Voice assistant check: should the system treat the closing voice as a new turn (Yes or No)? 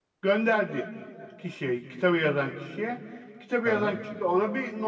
No